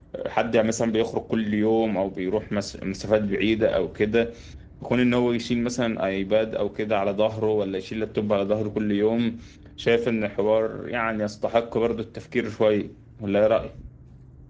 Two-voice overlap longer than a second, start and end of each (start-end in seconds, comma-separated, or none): none